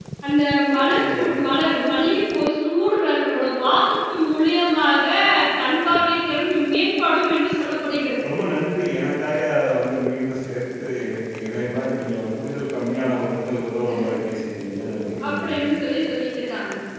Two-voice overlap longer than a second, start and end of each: none

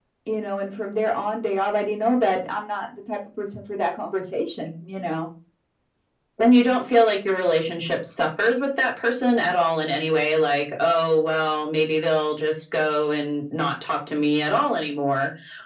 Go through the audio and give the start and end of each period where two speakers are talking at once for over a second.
none

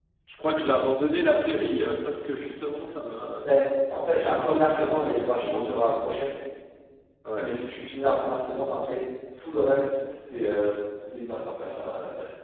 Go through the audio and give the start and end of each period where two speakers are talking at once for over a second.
4.2-5.7

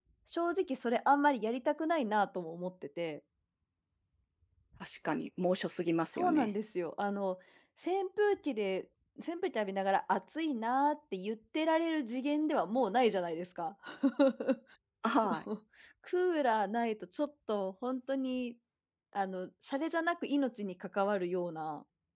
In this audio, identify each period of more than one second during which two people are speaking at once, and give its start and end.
none

